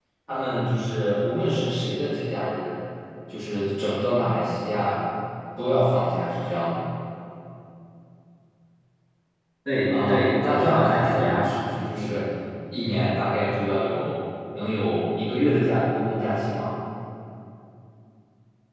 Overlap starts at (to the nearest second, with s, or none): 10 s